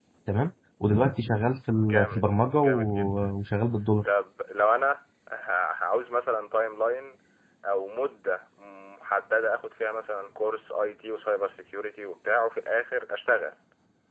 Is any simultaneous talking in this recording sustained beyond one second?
Yes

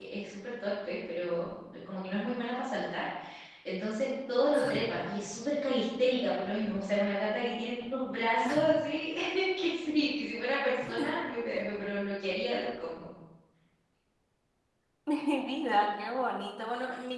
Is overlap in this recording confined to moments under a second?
Yes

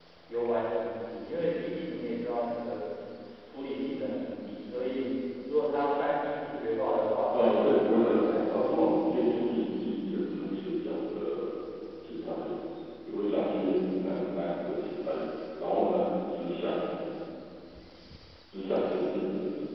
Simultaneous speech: Yes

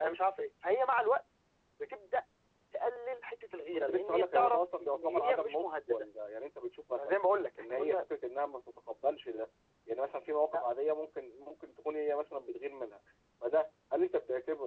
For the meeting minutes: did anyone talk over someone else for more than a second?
Yes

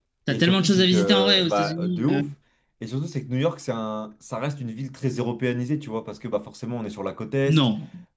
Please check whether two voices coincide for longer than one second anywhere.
Yes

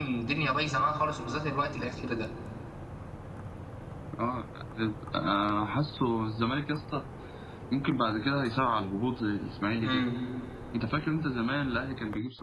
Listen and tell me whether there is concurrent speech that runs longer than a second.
No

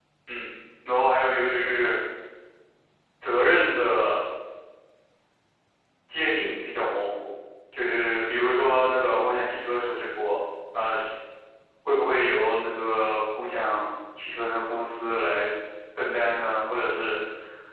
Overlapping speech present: No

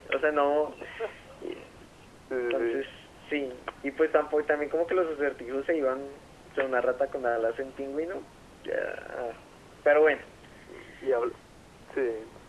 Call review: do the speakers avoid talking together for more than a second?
Yes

